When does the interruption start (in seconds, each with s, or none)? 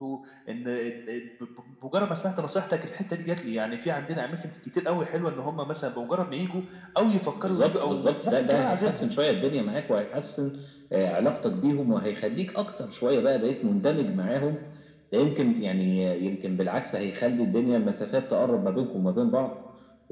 7.5 s